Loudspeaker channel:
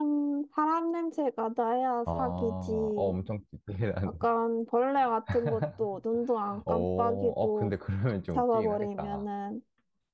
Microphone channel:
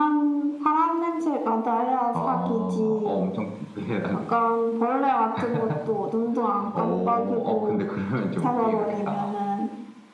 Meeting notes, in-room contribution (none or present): none